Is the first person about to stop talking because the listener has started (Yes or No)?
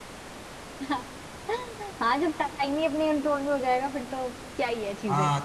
Yes